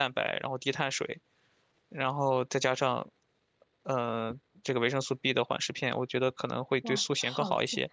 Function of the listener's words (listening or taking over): taking over